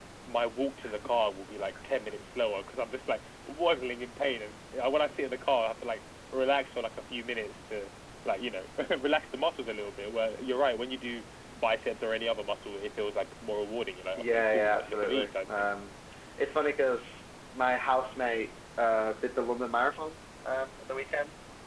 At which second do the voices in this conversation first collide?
14 s

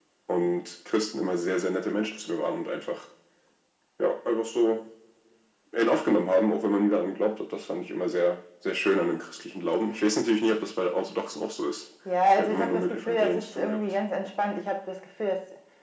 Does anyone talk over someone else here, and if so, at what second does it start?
12 s

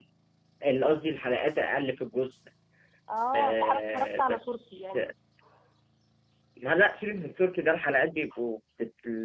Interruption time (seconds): 3 s

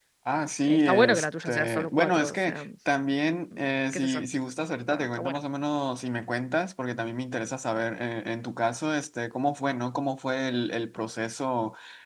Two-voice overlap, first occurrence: 1 s

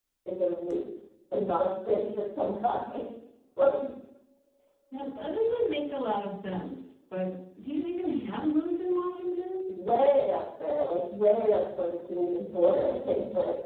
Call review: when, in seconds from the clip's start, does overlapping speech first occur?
none

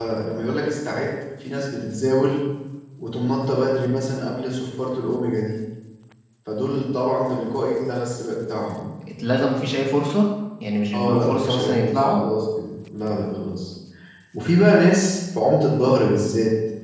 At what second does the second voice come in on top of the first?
11 s

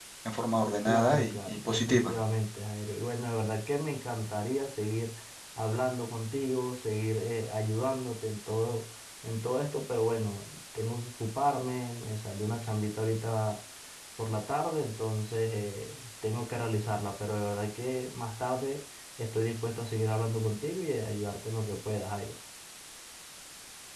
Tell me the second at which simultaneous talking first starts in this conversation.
1 s

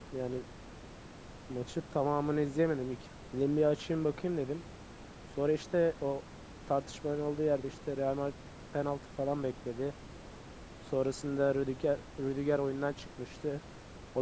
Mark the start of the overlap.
none

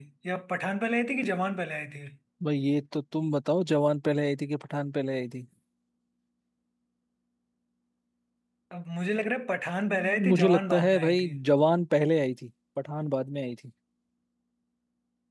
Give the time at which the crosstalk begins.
10 s

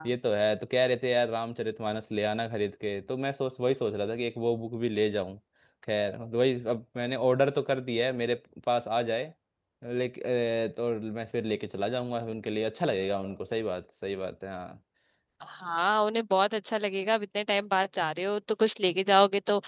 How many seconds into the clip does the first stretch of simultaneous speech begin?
none

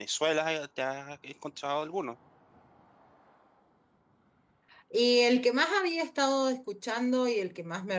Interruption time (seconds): none

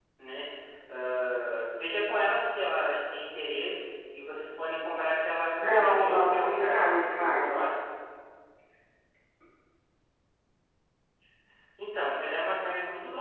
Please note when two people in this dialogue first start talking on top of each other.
6 s

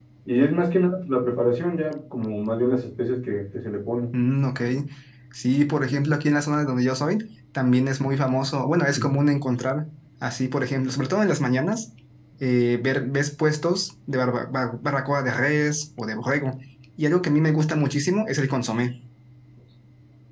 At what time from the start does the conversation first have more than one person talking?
none

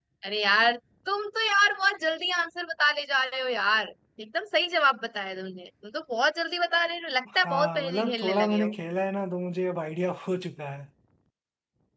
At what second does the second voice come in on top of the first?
7 s

